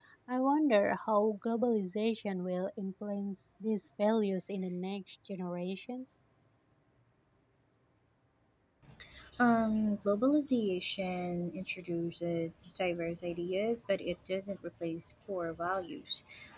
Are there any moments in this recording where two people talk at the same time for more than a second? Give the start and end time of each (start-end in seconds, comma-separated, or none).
none